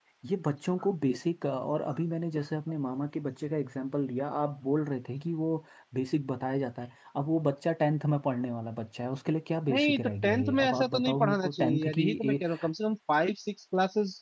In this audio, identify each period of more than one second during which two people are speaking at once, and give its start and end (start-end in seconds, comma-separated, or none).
9.7-12.4